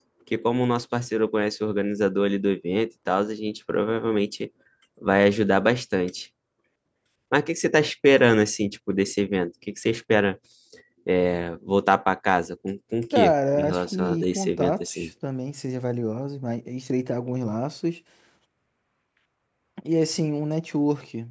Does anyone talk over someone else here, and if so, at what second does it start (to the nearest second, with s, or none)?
13 s